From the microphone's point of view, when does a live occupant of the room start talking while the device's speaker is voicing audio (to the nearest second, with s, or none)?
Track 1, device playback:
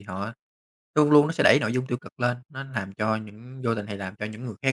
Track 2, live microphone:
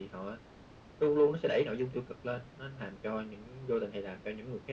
none